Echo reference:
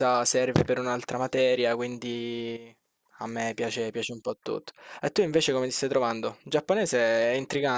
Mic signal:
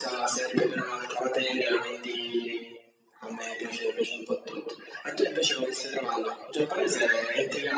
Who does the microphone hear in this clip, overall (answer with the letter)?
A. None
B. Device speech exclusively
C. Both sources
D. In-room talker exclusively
B